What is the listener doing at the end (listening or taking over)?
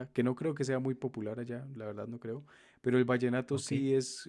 listening